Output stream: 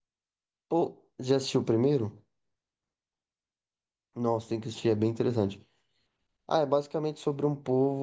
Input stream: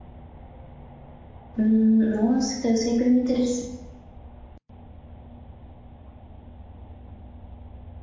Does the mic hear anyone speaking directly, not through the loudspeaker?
Yes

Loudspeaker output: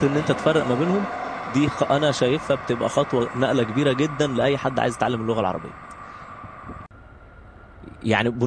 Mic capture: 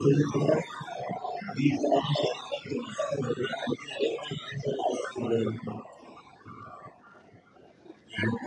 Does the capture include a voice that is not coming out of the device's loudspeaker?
No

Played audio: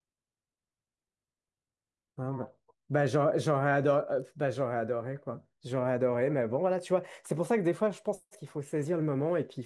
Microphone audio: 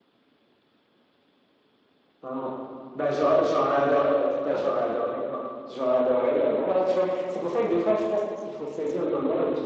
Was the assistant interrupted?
Yes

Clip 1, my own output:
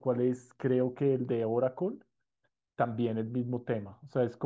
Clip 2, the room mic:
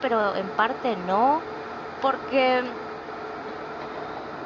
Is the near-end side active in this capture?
Yes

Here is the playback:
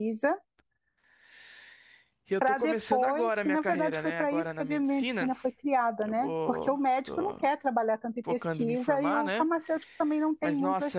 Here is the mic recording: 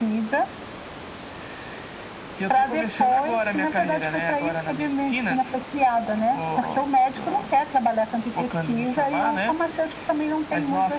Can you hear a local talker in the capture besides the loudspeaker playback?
No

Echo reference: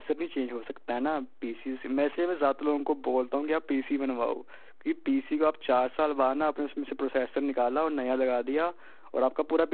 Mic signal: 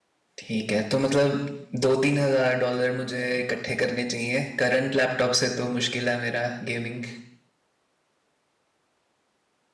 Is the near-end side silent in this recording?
No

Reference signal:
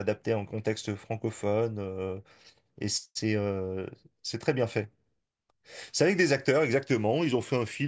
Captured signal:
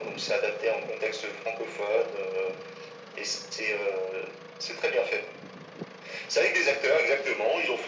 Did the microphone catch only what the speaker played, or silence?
Yes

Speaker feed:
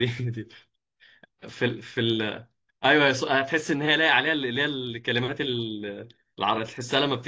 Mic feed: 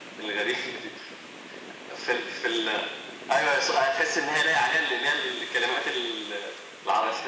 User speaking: No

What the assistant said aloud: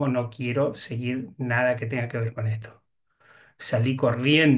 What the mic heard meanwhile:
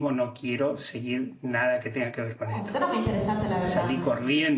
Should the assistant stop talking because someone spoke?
Yes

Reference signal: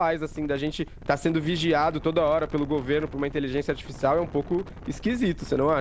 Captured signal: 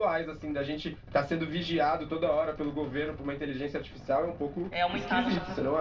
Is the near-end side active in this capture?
Yes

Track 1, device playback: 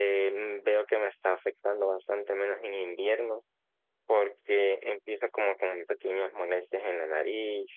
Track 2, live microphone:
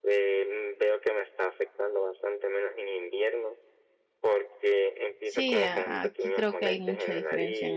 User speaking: Yes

